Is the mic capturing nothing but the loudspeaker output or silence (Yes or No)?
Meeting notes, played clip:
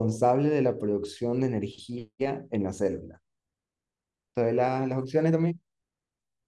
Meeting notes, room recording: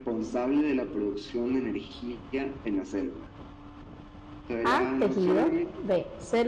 No